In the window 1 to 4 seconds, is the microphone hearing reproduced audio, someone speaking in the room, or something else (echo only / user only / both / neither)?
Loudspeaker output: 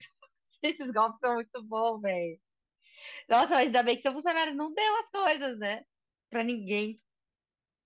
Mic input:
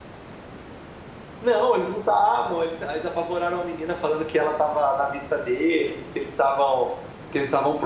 user only